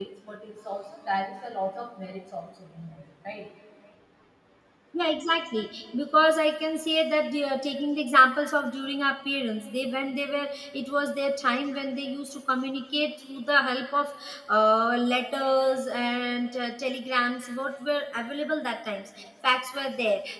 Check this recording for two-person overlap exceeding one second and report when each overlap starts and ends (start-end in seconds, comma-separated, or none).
none